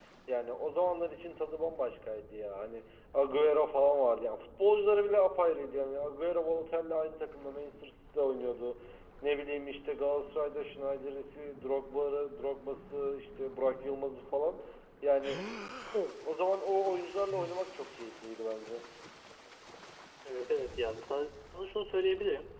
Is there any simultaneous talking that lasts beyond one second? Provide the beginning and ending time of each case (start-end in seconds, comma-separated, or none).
none